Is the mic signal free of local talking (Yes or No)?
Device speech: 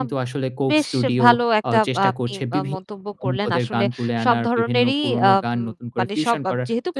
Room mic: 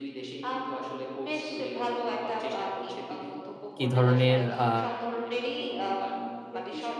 No